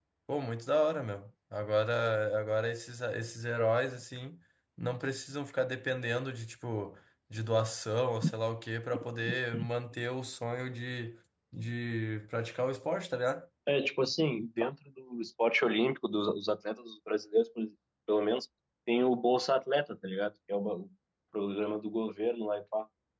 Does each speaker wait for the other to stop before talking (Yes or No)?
Yes